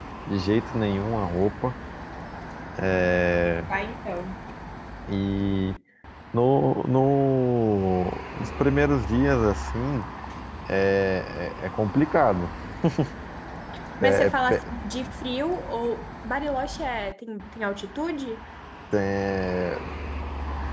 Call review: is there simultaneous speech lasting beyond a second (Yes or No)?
No